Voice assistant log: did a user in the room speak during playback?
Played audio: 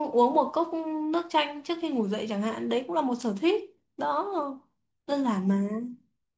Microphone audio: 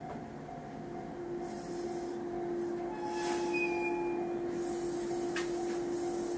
No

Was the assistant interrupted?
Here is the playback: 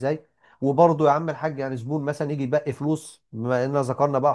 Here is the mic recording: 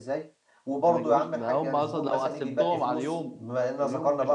Yes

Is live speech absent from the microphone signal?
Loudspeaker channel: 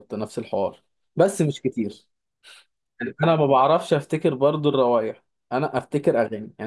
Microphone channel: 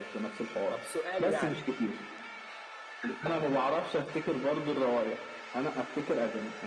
No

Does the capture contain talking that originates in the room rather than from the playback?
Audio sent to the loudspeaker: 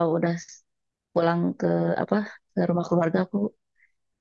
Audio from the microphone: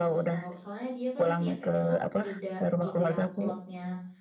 Yes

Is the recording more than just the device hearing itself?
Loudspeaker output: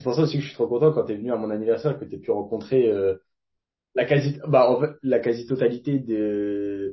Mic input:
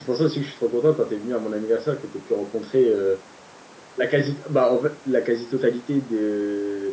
No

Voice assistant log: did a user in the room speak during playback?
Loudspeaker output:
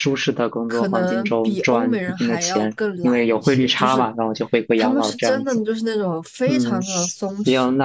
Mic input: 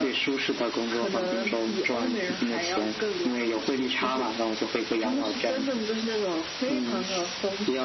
No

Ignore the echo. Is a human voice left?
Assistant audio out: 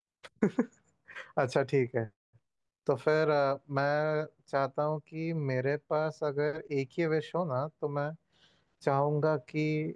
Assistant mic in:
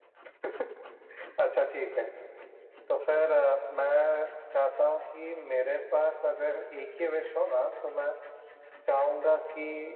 No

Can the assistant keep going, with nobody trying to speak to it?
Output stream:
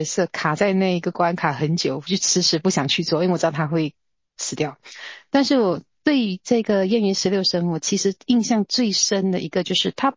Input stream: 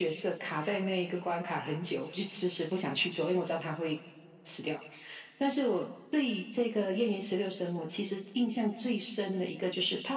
Yes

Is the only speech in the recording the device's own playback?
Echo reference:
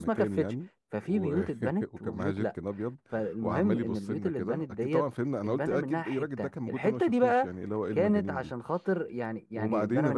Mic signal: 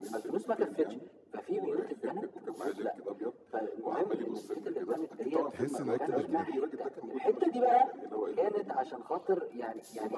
No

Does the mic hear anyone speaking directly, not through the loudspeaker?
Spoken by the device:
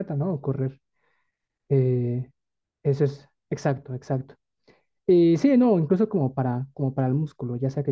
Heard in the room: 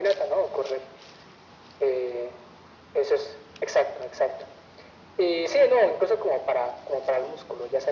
No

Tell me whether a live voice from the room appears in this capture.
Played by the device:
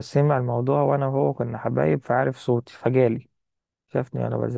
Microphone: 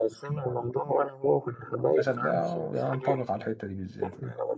Yes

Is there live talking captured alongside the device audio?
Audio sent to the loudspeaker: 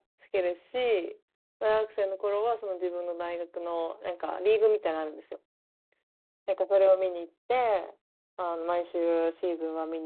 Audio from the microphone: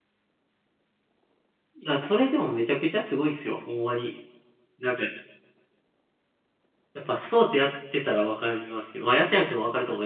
Yes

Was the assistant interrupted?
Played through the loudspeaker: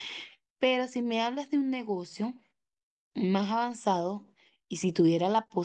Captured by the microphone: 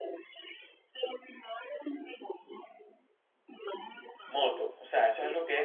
Yes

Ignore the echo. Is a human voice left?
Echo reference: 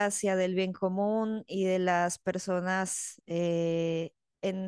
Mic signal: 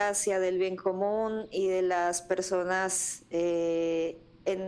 No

